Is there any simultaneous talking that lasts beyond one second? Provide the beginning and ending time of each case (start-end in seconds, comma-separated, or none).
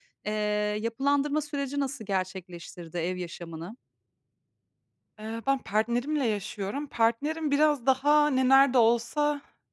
none